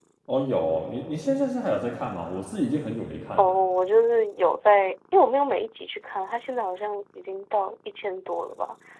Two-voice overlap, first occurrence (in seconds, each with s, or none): none